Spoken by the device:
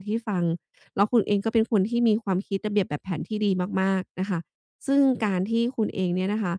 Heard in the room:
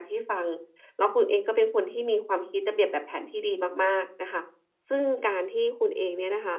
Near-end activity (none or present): none